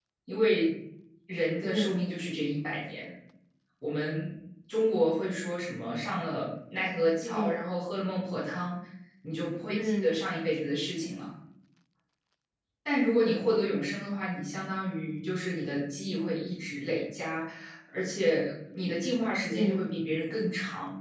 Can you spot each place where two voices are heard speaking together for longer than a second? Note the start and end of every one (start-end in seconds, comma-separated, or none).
none